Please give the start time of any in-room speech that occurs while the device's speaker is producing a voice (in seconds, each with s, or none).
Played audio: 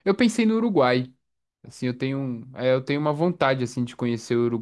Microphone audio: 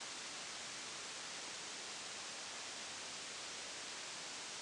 none